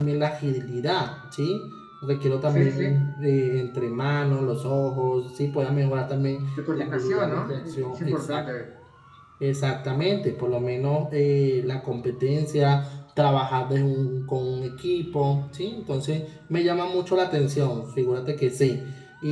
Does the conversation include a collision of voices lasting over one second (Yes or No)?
Yes